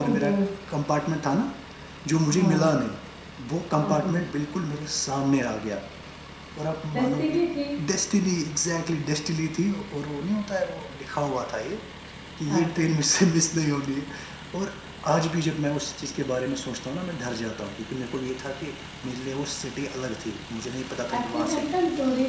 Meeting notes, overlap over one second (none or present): none